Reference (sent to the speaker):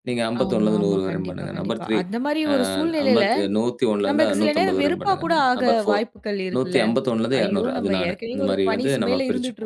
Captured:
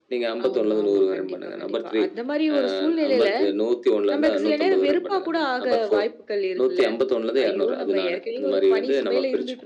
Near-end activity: none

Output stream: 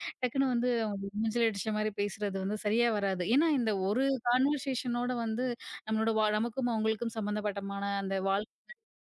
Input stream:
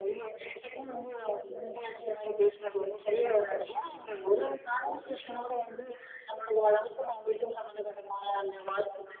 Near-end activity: none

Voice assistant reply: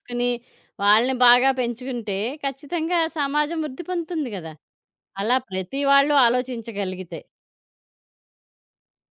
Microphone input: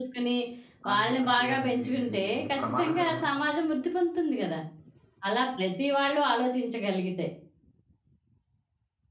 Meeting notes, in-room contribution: present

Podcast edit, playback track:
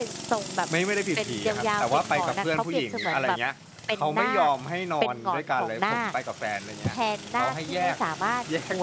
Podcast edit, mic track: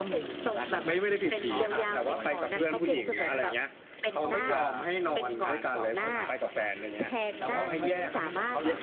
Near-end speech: present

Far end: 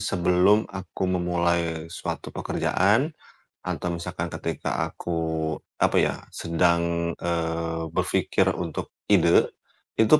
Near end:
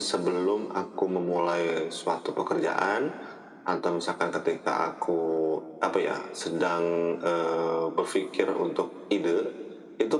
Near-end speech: none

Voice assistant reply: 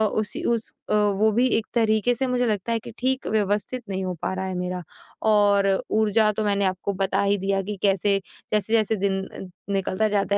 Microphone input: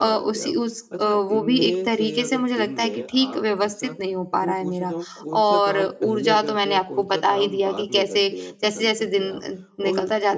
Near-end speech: present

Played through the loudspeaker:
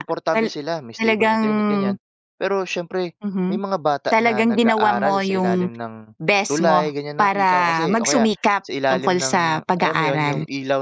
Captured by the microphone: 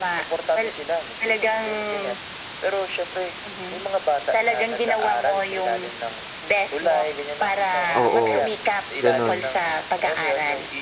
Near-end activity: present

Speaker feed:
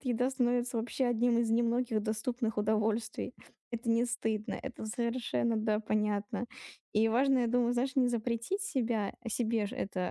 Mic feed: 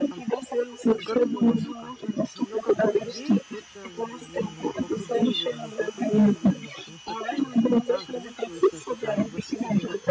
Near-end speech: present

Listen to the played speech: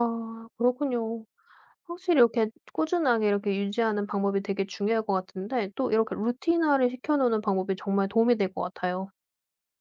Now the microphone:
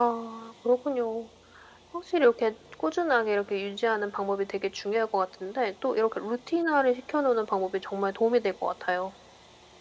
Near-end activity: none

